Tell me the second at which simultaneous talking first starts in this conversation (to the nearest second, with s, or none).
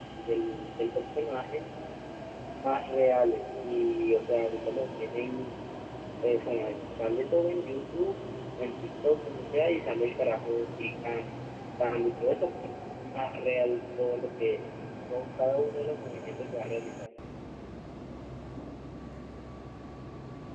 none